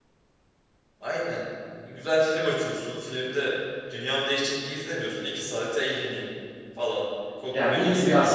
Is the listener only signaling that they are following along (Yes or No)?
No